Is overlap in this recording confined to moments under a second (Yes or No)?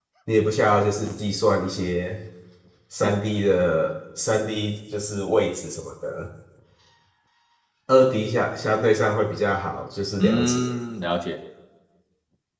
Yes